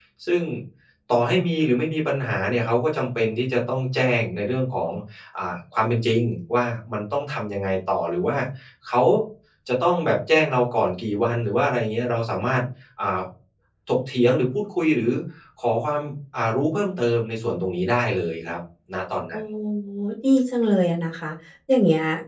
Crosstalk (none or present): none